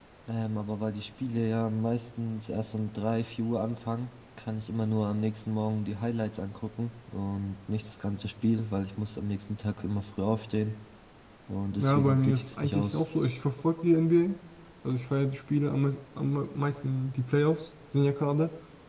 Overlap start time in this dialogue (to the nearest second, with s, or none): 12 s